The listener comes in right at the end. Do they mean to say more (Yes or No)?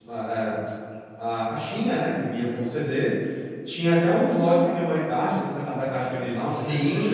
Yes